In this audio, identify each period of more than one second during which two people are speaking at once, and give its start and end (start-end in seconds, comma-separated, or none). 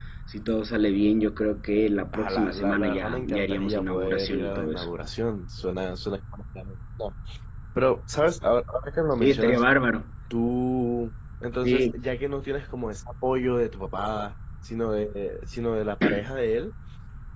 2.1-4.9